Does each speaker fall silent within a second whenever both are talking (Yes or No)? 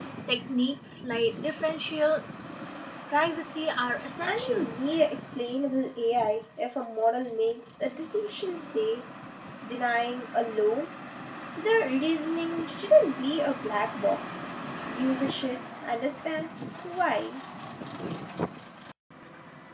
Yes